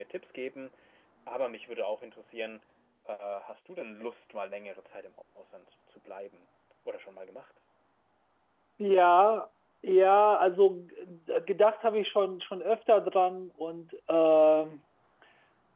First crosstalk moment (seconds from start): none

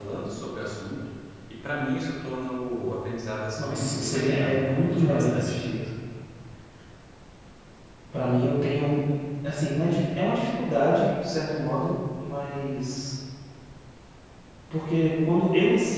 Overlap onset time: 3.6 s

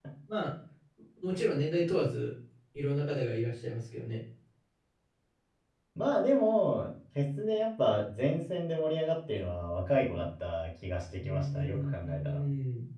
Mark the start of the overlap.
11.2 s

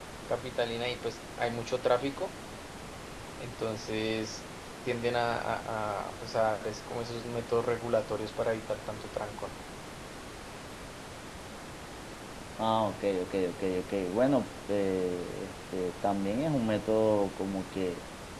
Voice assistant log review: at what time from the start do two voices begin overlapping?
none

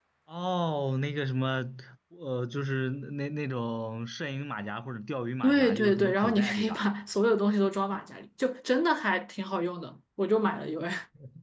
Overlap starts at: 5.4 s

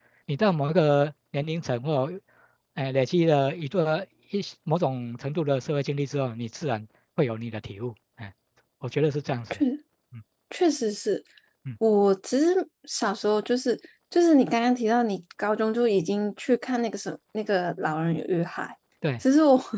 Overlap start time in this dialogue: none

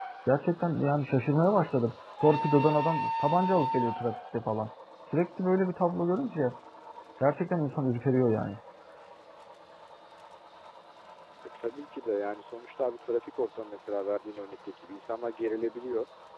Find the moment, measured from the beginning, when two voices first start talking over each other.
none

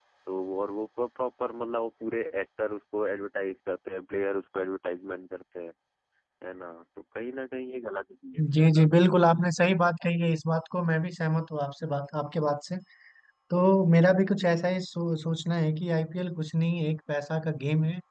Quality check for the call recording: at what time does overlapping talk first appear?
none

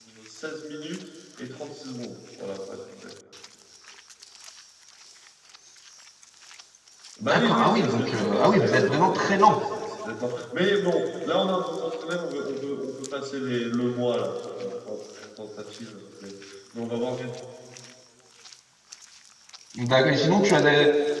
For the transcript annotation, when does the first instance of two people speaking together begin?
7.2 s

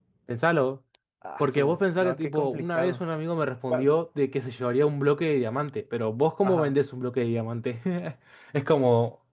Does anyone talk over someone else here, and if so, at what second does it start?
1.4 s

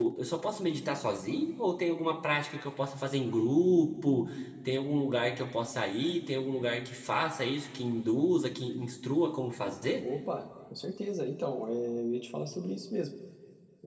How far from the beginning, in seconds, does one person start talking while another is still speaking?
none

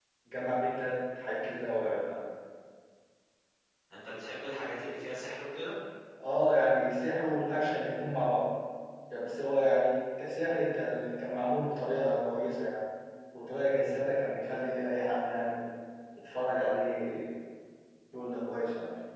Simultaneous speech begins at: none

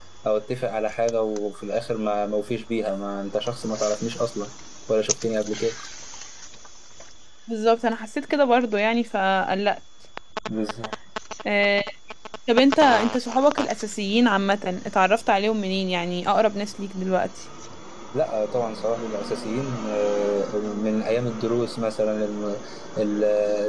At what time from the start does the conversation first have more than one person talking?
none

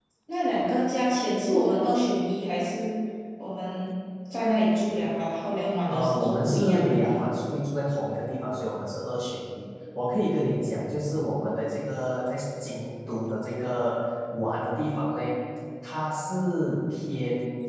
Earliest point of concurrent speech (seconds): 5.9 s

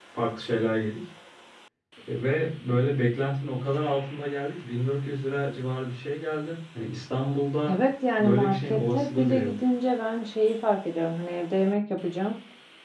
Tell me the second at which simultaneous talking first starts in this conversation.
8.2 s

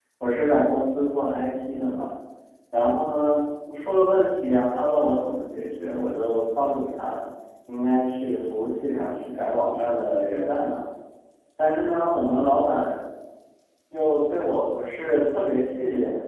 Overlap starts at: none

